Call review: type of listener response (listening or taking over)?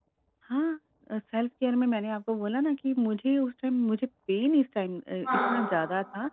listening